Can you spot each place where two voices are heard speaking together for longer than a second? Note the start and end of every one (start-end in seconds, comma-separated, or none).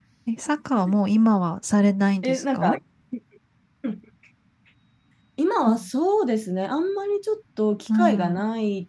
none